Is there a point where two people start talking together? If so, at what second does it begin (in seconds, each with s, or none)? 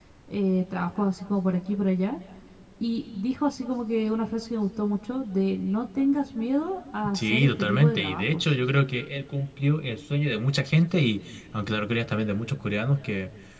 7.1 s